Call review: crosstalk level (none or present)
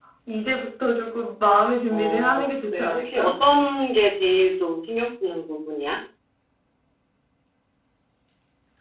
present